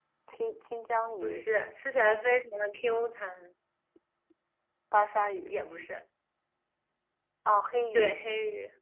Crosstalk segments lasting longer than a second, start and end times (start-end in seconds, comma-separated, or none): none